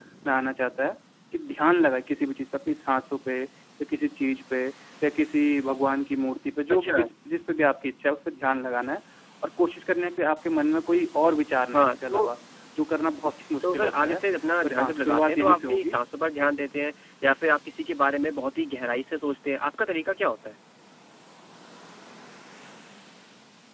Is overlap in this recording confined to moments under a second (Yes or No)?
No